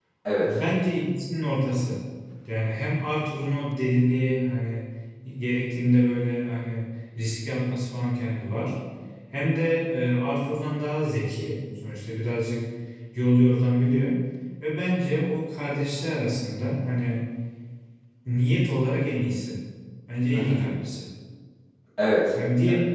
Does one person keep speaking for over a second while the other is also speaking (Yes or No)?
No